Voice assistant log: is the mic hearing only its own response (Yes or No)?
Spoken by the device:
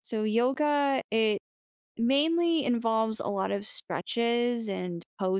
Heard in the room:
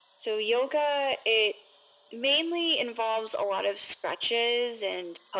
Yes